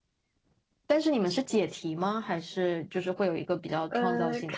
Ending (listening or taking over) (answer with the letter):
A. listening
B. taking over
B